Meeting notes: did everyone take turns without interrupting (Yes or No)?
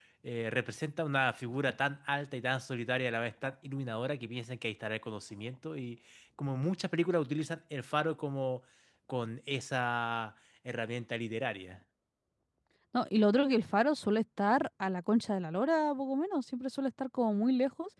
Yes